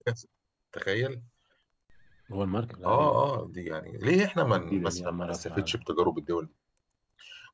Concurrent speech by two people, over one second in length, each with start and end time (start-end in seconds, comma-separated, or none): 4.5-5.8